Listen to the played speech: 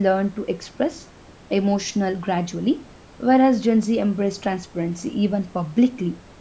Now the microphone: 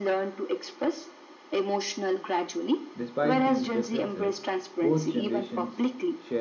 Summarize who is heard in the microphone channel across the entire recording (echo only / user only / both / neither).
both